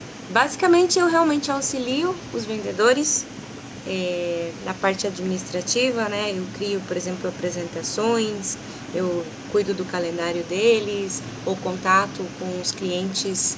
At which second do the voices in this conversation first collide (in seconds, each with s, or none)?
none